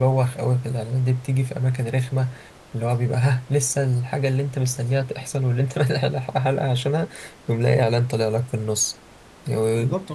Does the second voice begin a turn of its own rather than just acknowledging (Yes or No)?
Yes